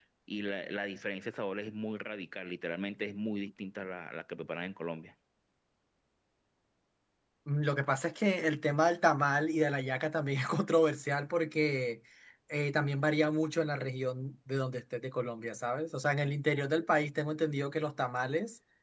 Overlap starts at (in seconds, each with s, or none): none